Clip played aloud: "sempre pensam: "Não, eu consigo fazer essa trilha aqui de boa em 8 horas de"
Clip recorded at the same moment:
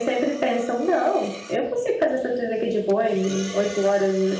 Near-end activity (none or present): none